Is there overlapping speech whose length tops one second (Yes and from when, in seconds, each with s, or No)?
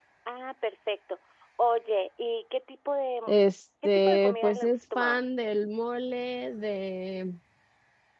Yes, from 3.8 s